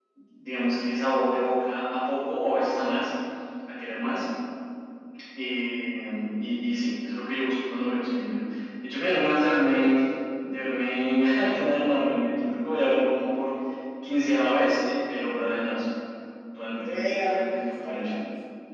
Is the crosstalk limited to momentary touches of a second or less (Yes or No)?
No